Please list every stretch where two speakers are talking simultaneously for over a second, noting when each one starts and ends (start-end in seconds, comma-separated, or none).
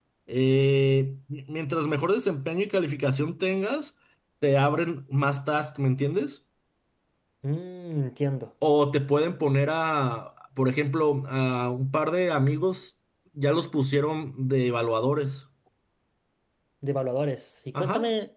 none